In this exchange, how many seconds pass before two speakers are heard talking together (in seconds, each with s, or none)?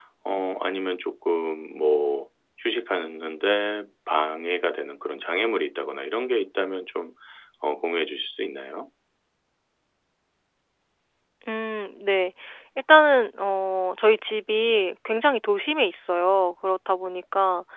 none